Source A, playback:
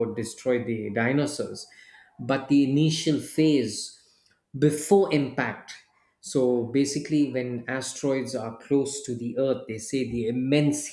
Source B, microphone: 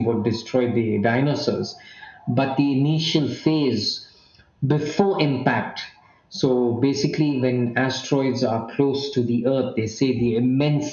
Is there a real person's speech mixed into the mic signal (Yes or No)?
No